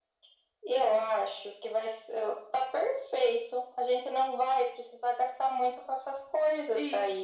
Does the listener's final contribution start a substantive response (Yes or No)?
Yes